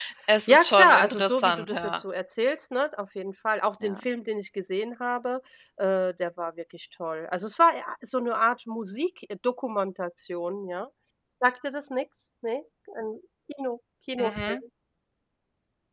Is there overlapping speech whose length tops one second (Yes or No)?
Yes